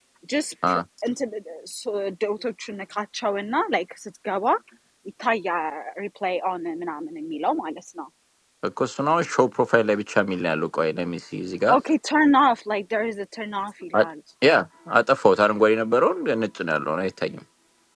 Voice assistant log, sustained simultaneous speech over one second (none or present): none